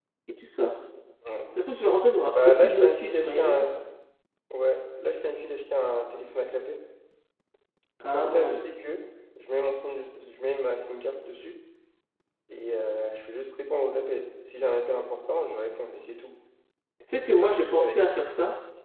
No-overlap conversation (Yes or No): No